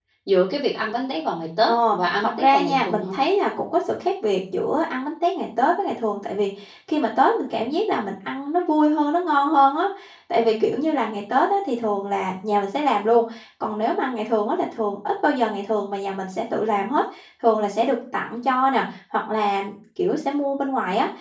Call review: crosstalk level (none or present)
present